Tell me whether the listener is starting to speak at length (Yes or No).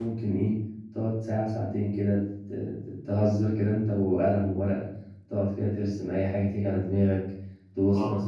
No